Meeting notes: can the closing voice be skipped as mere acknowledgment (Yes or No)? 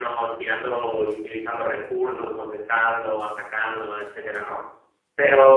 Yes